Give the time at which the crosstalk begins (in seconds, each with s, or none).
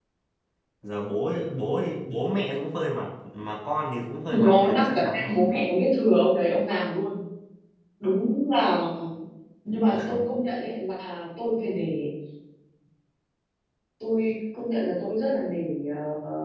4.3 s